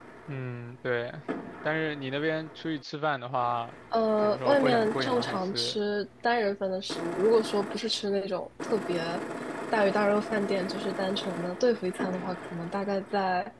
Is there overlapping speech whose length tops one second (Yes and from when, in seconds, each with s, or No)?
Yes, from 4.2 s